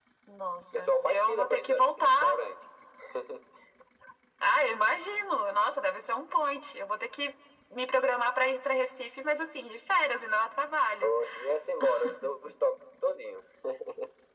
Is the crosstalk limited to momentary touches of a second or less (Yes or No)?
No